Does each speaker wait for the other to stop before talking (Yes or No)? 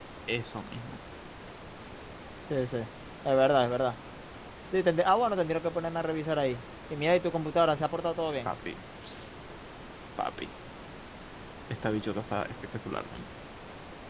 Yes